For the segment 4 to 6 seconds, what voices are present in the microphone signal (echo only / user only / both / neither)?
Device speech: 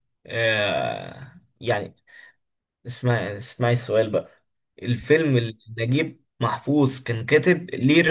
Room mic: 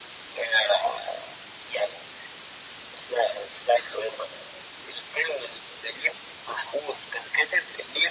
echo only